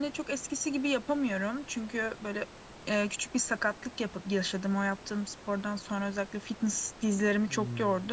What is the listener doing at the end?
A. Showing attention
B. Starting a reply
A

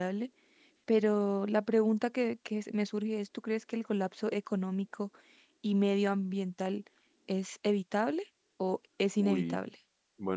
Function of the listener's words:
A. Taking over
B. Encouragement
A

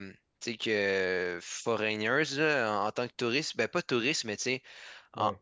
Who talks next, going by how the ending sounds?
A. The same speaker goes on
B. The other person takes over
A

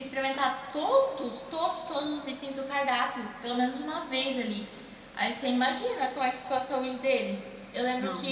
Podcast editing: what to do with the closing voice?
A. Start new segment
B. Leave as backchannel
B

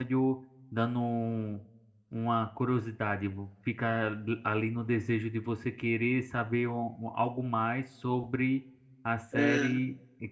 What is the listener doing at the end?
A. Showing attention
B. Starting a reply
A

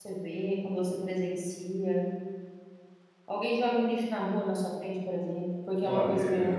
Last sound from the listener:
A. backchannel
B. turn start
B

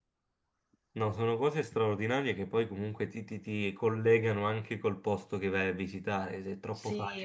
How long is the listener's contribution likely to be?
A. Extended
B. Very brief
A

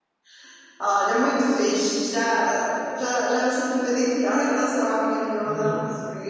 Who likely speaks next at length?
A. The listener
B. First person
B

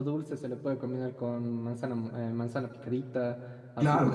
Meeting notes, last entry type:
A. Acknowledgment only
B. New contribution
B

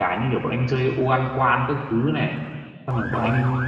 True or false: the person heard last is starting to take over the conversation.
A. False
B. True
A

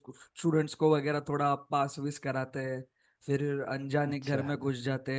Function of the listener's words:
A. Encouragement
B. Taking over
A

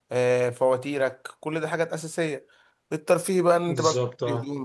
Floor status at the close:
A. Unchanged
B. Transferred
A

